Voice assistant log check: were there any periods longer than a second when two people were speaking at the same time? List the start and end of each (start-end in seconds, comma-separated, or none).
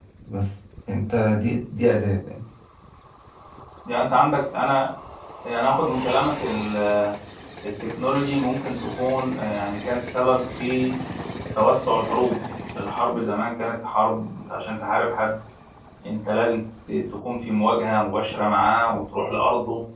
none